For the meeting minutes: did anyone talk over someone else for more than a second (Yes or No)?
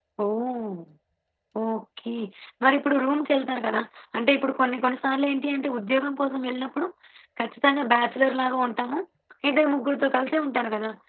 No